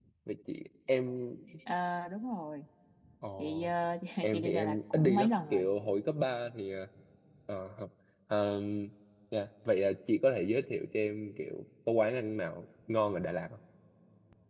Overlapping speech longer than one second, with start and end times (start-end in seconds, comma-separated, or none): 4.2-5.6